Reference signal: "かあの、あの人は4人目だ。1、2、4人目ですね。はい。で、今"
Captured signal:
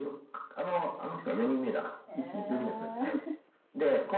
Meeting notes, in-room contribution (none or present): present